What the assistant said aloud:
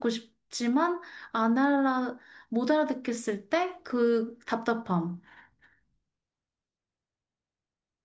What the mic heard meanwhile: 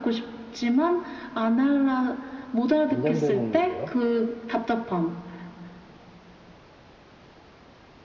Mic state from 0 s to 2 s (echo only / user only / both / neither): echo only